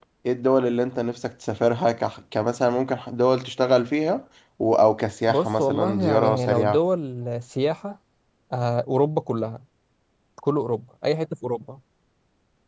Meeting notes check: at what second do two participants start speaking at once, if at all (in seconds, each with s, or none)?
5.3 s